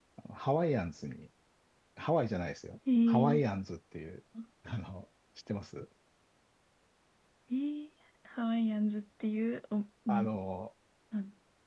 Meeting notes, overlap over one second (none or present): none